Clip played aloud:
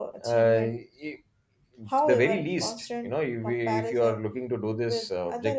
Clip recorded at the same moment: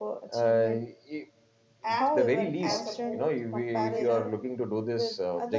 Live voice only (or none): act as a both a mirror